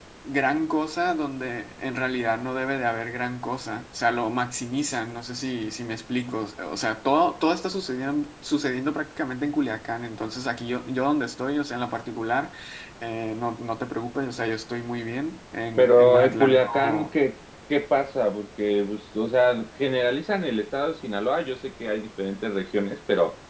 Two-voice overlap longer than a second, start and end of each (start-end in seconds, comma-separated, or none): 15.8-17.1